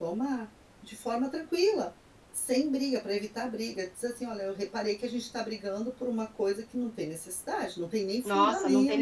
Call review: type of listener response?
taking over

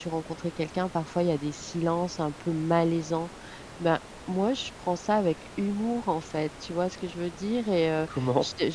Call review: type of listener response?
listening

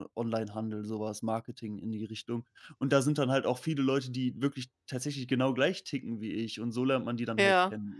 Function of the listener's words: taking over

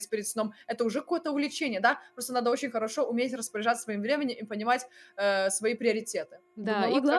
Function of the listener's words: taking over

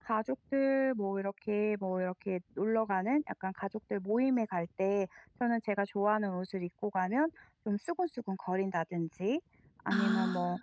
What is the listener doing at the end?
listening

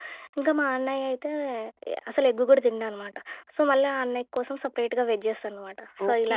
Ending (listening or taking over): taking over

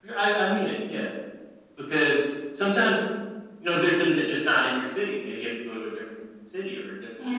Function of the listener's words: taking over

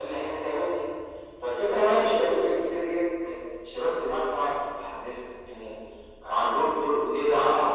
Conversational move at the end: listening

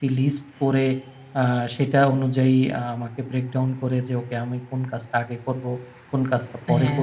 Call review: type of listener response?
listening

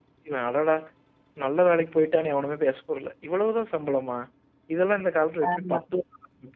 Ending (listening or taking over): listening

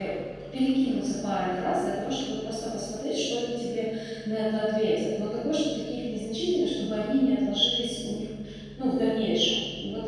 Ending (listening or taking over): listening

